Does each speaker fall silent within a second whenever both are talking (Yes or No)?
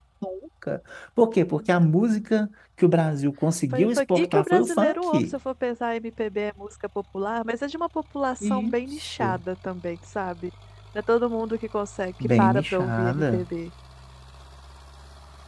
No